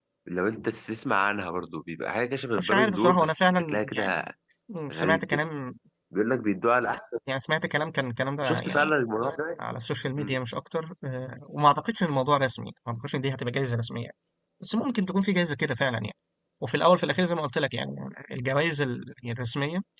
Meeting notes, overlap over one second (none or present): present